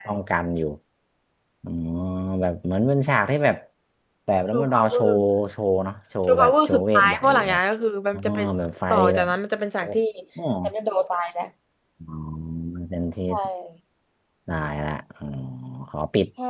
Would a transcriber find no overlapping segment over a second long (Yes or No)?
No